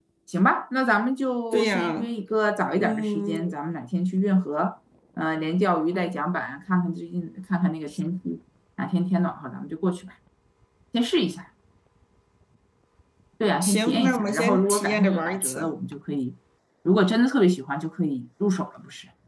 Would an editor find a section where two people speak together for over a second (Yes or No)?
Yes